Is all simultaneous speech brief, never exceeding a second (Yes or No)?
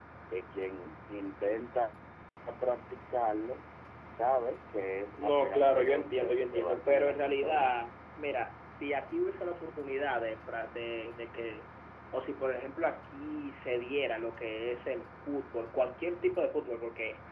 No